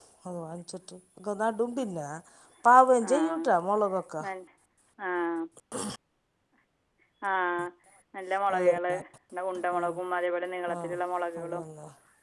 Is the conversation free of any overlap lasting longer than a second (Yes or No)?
Yes